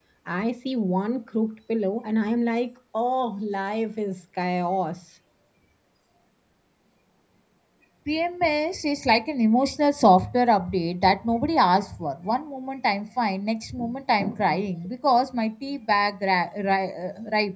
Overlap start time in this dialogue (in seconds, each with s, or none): none